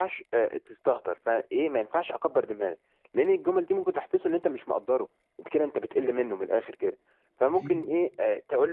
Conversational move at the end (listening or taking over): listening